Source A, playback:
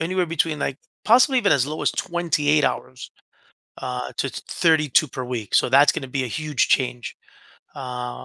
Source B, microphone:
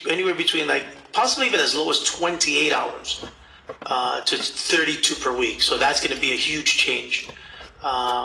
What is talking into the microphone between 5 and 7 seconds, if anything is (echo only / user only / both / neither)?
echo only